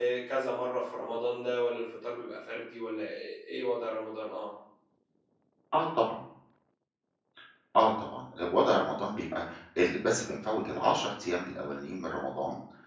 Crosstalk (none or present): none